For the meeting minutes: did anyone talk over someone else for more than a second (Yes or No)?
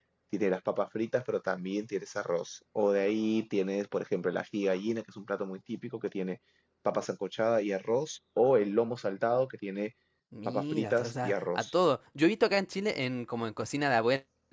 Yes